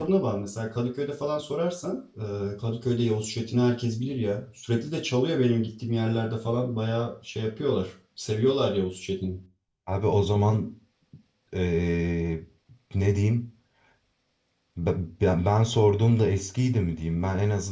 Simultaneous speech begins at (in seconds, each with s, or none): none